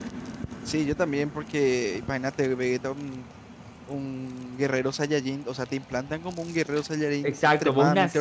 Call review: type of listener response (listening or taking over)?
taking over